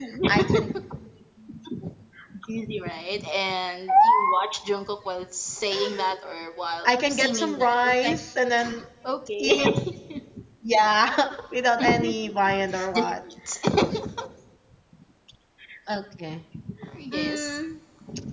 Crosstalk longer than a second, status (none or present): present